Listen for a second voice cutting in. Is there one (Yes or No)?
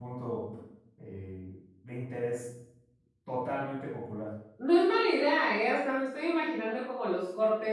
No